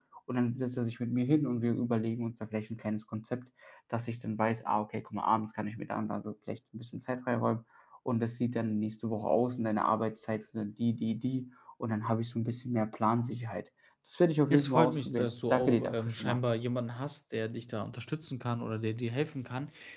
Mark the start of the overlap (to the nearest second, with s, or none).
15 s